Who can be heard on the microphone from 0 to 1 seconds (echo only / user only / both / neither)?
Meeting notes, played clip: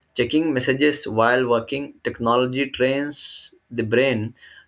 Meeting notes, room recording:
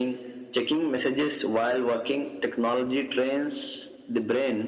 echo only